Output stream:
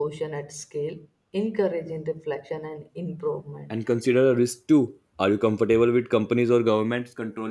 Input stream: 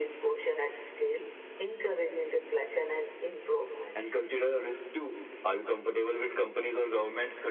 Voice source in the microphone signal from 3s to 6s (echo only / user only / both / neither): echo only